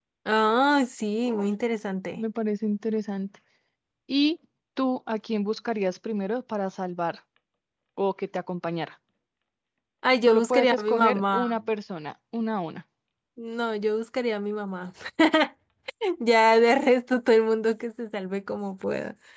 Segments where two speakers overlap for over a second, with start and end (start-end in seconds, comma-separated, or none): 10.3-11.5